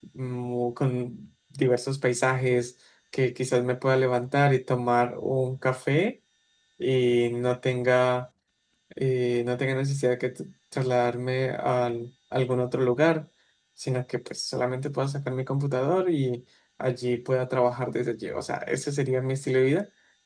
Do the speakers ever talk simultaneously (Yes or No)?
No